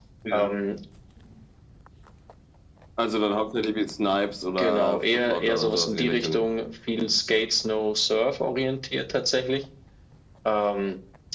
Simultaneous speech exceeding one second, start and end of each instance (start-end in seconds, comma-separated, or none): 4.6-6.4